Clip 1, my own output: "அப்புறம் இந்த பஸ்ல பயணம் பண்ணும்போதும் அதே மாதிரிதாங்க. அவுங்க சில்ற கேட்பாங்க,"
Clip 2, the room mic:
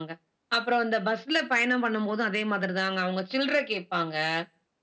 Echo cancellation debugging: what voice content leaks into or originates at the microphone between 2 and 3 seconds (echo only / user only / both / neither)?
echo only